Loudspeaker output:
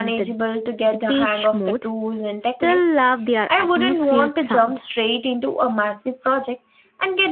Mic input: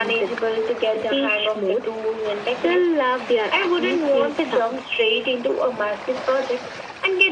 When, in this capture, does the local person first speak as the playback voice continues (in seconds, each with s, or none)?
none